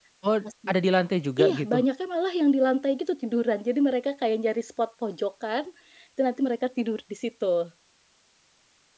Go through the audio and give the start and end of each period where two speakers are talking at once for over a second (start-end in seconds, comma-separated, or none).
none